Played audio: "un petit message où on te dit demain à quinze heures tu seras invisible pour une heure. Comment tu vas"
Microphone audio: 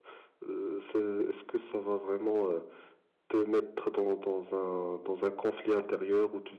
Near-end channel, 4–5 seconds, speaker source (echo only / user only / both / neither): user only